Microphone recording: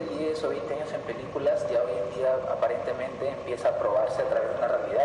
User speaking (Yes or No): No